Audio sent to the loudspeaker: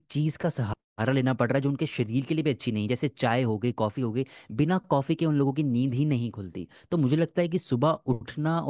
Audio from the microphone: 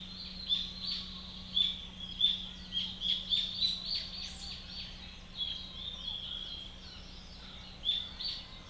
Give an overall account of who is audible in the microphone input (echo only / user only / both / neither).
neither